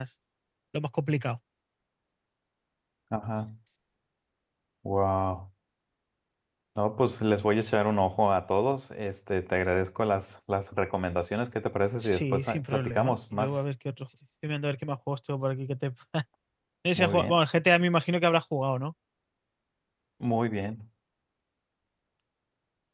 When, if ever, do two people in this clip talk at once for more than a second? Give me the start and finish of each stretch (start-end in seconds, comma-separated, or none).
12.0-13.6